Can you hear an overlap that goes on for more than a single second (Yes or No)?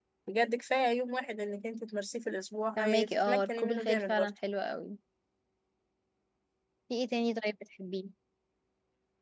Yes